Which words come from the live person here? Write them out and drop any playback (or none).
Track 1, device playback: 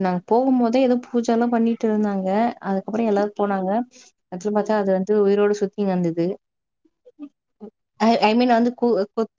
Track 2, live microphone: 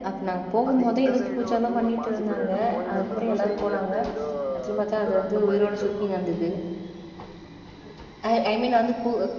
அது இந்த சைடு வந்து ஒரு மாசிபரியனு கோயில் இருந்திருக்கு சைடுல அந்த ஏதோ குதிரை இந்த மாறி இருந்திருக்கு